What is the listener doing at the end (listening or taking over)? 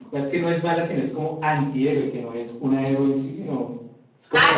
taking over